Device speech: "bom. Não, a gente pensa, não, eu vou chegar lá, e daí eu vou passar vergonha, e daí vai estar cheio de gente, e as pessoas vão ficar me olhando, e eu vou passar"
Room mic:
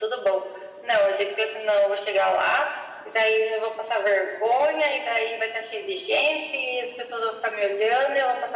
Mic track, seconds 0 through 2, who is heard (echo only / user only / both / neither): echo only